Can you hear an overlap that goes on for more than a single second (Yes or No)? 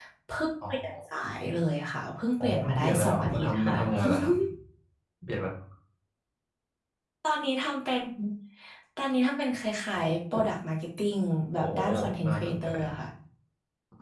Yes